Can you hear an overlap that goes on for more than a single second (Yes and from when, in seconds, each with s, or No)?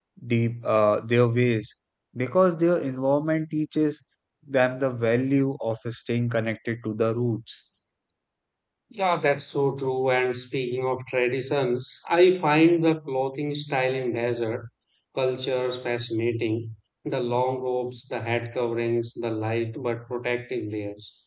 No